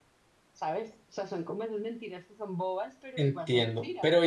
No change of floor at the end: No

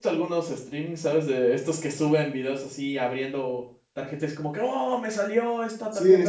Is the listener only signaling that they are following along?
No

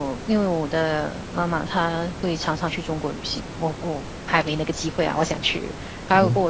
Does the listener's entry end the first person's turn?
No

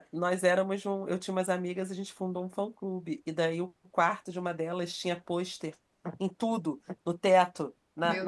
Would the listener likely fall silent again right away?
Yes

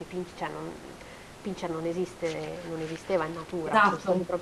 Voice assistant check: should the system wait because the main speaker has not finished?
Yes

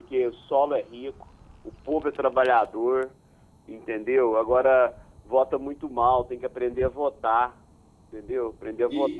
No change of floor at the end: No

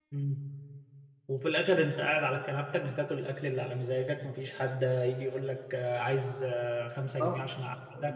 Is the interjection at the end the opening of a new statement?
Yes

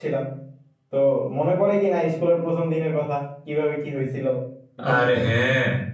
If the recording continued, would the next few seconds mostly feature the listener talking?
Yes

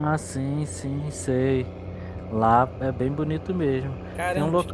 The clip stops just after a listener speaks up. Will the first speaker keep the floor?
No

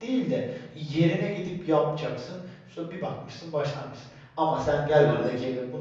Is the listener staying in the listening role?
Yes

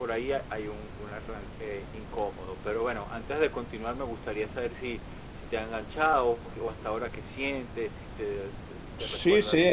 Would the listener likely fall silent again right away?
No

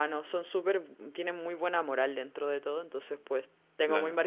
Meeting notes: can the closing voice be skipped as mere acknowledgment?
Yes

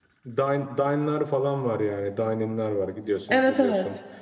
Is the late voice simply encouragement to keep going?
Yes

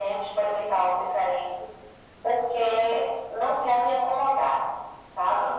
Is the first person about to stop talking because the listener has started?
No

